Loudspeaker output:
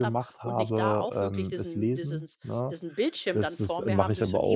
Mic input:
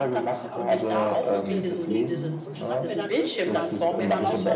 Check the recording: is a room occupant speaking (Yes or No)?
Yes